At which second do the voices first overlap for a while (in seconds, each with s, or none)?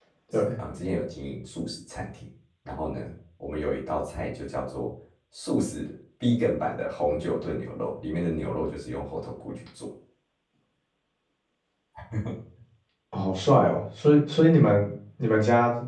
none